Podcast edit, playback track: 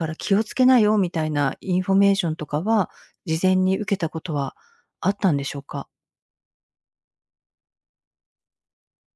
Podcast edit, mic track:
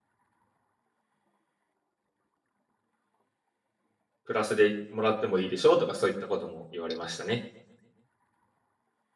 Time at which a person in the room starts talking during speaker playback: 4 s

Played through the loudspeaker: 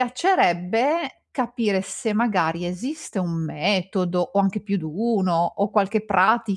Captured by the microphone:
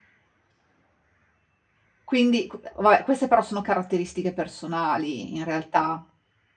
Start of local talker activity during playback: 2 s

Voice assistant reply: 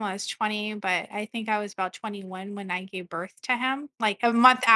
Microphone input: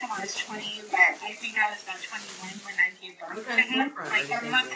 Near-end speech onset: 3 s

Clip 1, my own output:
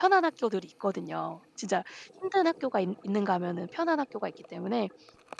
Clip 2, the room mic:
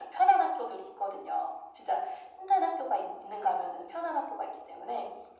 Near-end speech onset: none

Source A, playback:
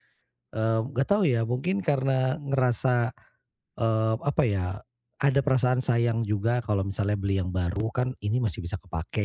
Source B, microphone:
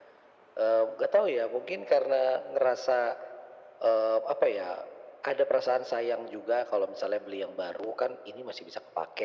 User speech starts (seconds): none

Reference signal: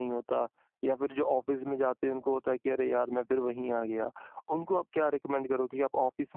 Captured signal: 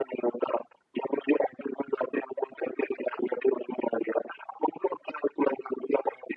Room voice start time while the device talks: none

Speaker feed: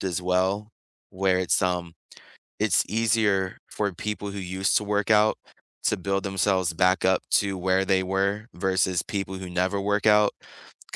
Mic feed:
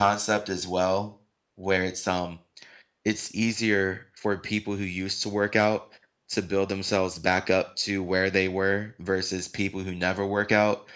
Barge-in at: none

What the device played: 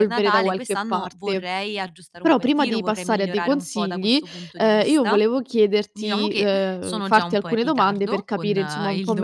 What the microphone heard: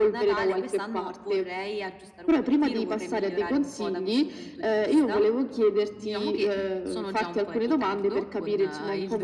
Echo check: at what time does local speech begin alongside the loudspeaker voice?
none

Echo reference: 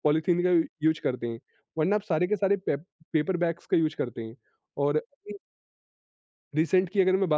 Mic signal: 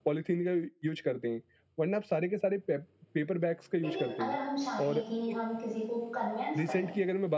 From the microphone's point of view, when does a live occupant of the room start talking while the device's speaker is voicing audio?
4 s

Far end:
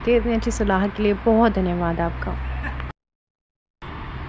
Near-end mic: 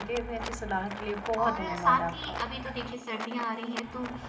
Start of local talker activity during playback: 1 s

